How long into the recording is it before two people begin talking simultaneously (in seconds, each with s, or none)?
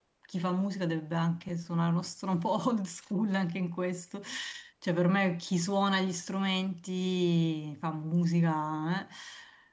none